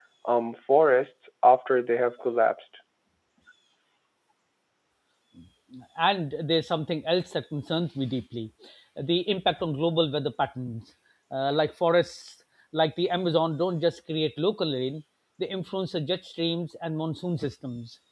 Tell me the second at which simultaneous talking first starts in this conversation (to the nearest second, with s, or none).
none